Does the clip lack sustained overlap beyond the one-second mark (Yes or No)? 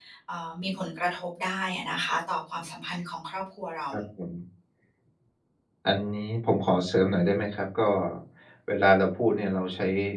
Yes